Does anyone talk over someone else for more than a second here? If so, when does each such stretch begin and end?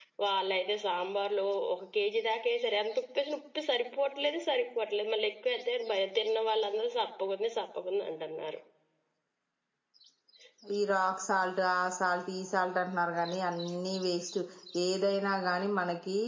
none

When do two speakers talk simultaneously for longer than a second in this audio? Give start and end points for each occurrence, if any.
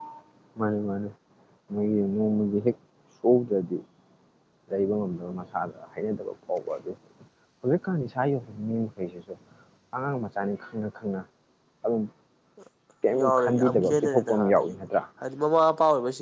13.2-14.9

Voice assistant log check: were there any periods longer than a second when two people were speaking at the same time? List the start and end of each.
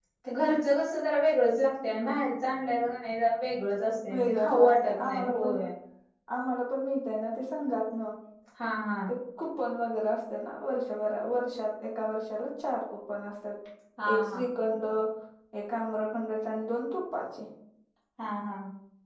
4.1-5.5

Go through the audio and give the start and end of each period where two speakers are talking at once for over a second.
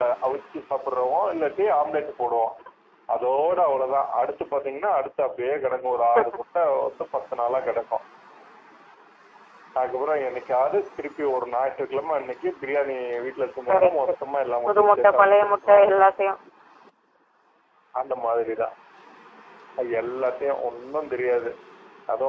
14.7-16.0

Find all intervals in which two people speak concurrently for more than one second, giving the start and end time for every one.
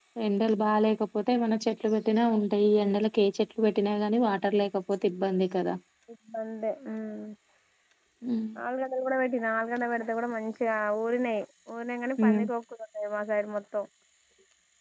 none

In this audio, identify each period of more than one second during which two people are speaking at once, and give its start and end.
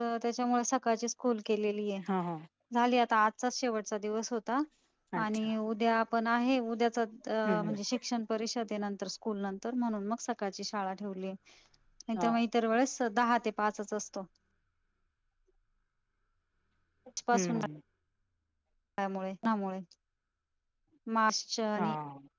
none

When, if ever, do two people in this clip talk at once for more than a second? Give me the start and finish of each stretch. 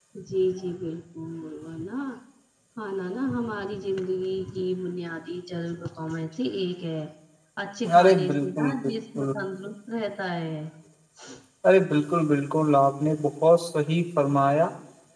8.0-9.3

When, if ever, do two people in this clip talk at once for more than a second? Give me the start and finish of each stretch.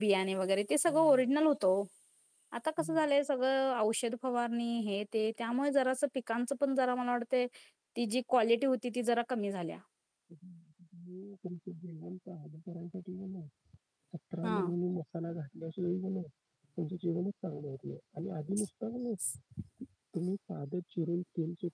none

